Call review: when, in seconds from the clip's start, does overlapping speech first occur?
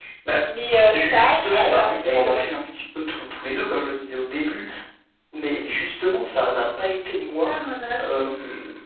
0.9 s

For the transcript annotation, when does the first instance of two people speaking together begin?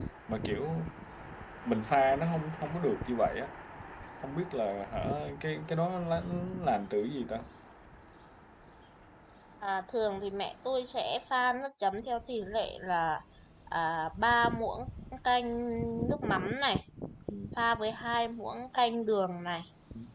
none

